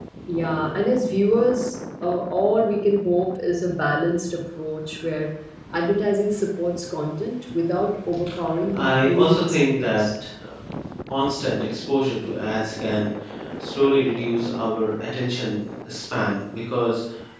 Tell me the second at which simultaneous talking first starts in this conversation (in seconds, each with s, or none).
8.8 s